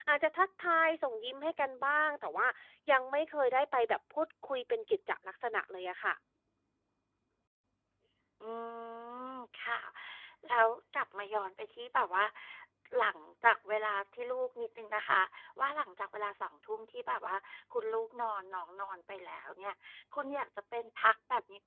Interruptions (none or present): none